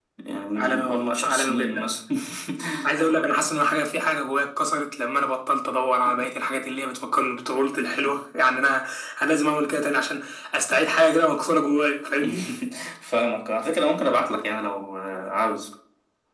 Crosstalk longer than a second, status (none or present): present